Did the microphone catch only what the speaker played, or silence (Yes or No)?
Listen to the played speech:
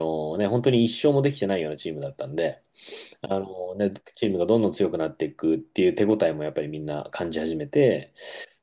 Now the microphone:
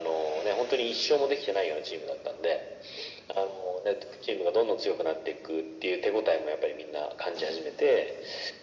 Yes